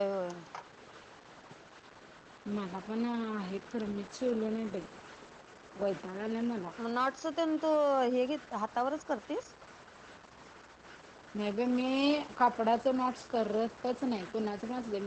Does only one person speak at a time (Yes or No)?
Yes